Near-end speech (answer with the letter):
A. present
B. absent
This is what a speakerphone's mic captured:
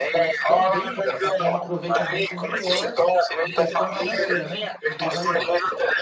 A